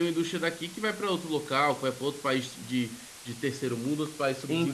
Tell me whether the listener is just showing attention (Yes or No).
No